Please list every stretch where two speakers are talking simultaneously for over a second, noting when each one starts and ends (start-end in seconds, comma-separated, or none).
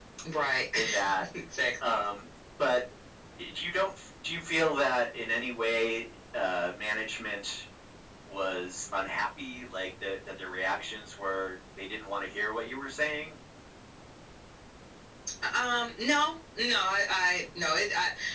none